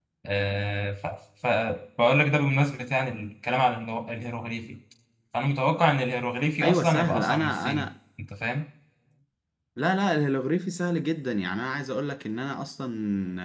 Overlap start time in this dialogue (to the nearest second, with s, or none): 7 s